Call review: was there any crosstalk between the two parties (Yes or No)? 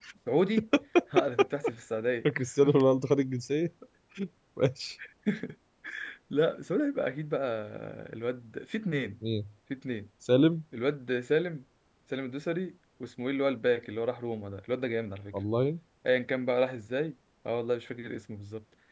No